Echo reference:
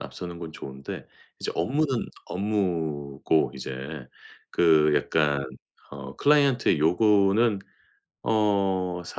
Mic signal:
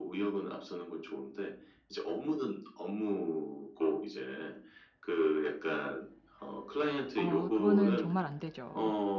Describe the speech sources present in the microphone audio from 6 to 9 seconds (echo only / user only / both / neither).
both